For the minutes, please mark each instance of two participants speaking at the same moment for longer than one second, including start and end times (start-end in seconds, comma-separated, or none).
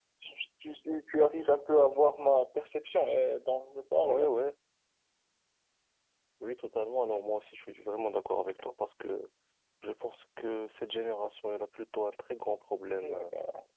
none